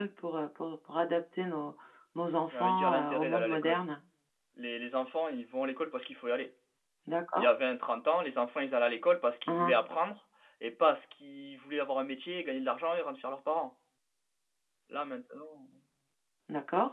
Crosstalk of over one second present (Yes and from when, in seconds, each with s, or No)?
Yes, from 2.5 s